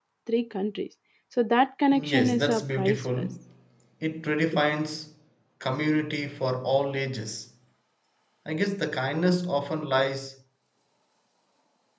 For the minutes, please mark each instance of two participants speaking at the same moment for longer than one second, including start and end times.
2.1-3.3

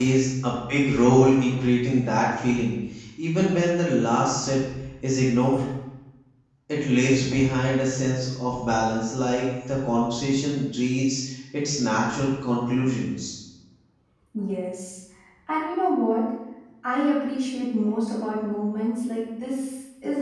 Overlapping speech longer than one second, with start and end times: none

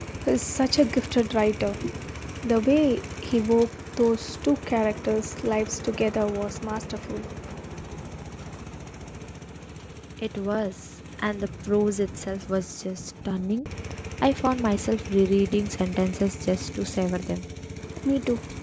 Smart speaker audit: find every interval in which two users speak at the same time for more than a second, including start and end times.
none

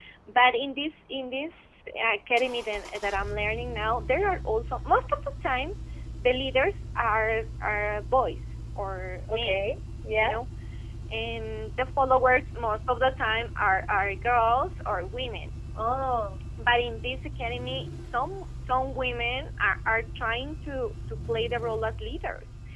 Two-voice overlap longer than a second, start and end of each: none

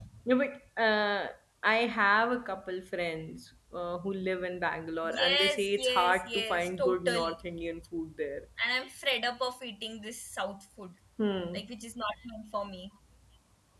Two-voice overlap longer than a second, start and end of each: 5.2-7.3

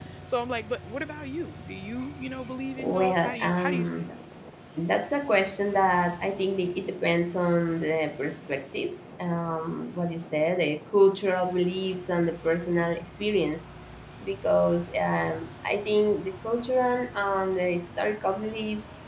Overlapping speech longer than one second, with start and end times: 2.8-4.2

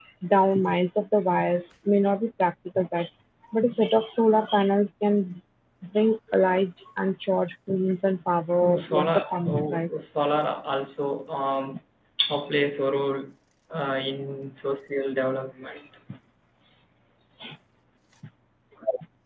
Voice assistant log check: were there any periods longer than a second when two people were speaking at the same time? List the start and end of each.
8.6-9.9

